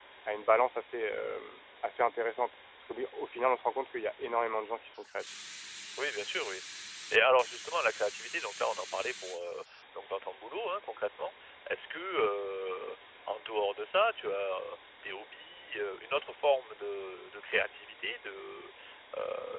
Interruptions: none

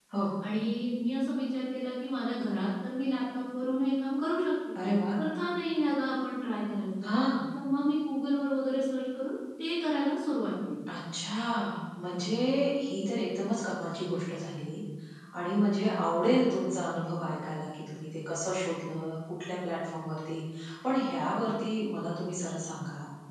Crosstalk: none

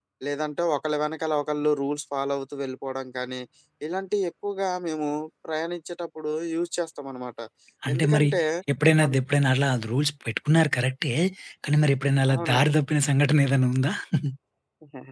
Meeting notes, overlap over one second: none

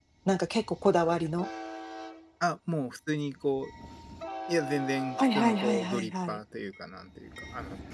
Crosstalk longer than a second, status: present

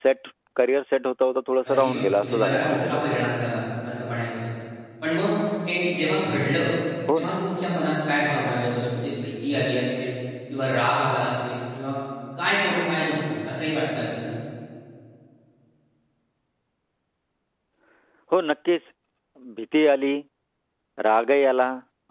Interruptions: present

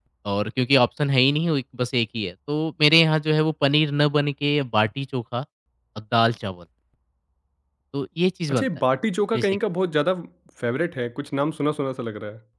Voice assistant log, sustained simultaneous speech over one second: none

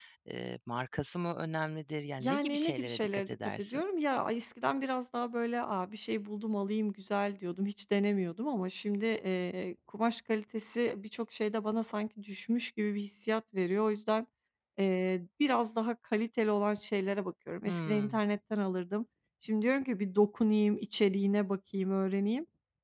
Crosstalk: present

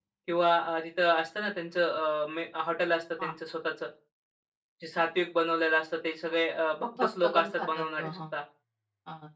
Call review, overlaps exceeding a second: present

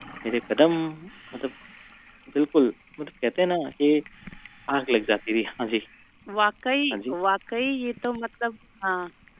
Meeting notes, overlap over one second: none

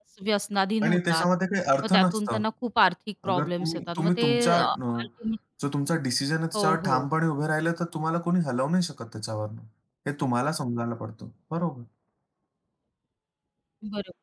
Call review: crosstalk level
present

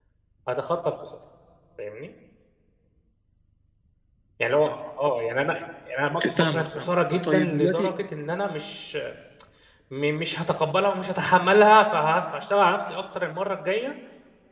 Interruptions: present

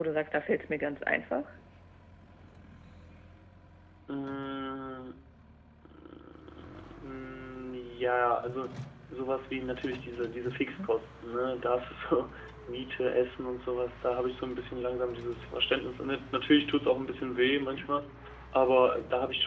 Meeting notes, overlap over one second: none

